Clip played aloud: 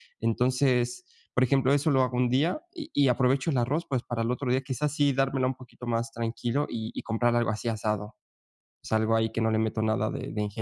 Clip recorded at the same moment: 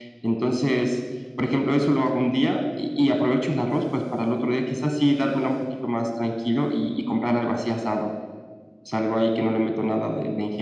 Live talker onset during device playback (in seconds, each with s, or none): none